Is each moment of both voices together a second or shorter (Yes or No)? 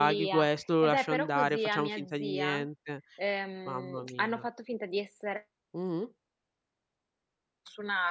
No